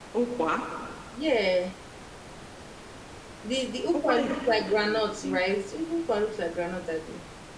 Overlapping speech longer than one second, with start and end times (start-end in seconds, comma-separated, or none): 4.0-5.4